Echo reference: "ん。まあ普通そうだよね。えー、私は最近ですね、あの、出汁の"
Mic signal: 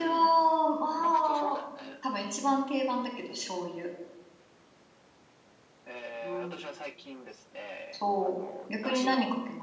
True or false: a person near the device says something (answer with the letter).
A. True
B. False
A